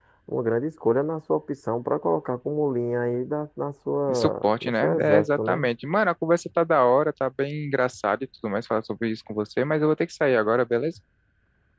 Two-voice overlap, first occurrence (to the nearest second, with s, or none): 4 s